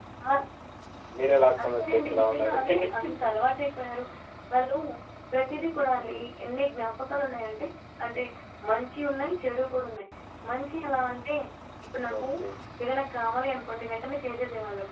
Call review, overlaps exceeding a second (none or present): present